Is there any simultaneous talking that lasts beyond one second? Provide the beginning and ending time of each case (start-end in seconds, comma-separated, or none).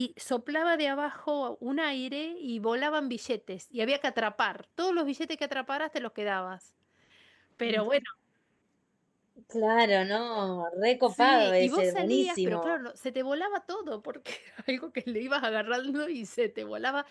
11.1-12.8